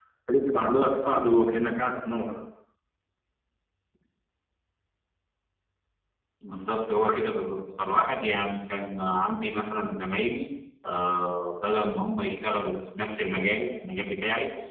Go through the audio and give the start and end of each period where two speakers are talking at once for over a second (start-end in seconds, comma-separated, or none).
none